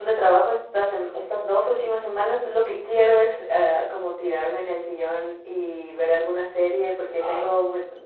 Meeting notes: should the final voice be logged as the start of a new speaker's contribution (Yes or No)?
No